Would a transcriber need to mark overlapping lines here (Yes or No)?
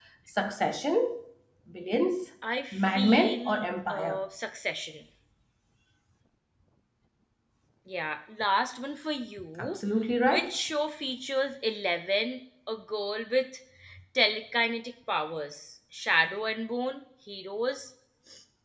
Yes